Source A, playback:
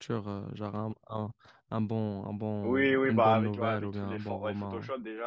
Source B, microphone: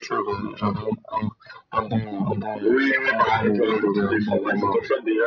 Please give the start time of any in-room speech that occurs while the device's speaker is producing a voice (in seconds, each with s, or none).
none